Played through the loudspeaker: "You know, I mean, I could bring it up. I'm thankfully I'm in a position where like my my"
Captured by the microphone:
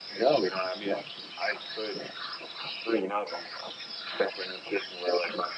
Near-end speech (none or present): none